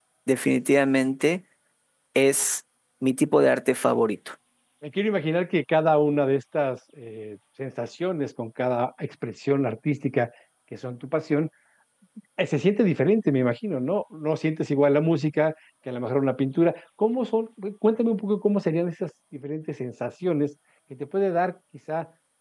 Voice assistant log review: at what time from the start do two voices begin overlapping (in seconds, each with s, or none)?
none